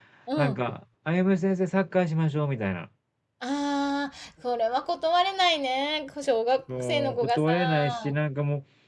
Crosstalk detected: Yes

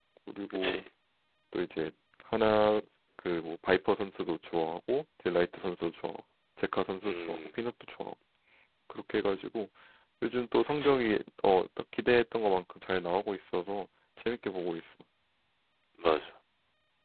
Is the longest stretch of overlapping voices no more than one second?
Yes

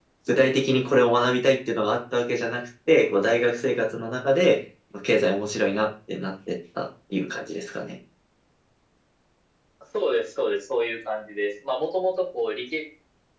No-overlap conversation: Yes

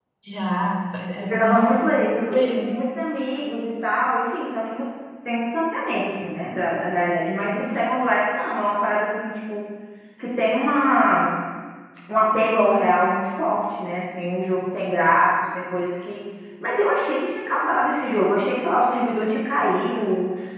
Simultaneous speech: Yes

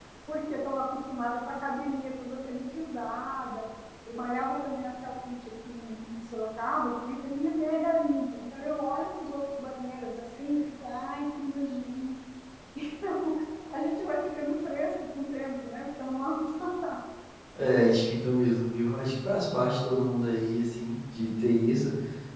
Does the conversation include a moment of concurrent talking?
No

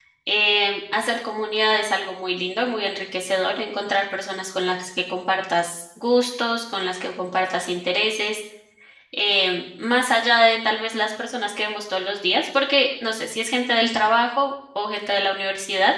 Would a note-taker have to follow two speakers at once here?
No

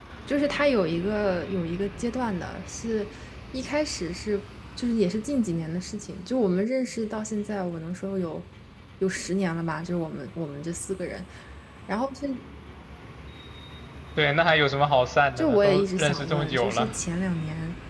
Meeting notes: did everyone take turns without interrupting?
No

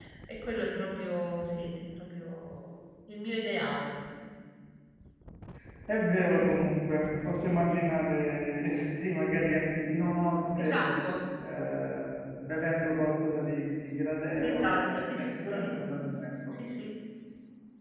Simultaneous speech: Yes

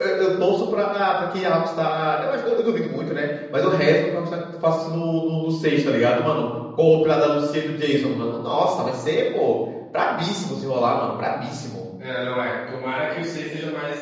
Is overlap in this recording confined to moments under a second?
Yes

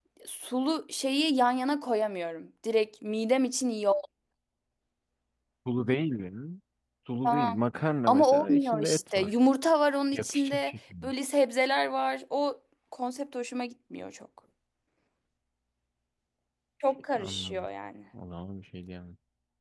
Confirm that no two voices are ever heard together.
No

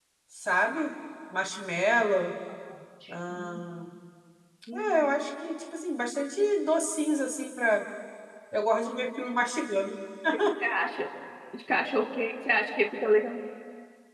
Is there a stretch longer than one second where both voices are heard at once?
No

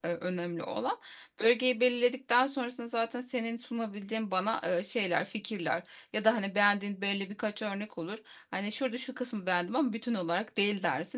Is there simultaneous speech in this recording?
No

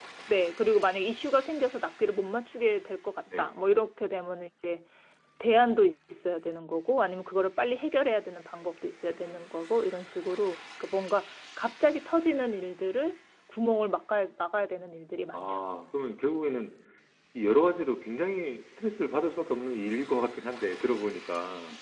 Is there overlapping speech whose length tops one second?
No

